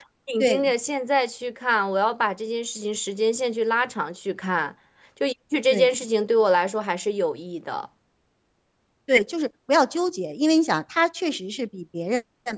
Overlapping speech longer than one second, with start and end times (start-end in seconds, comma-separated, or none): none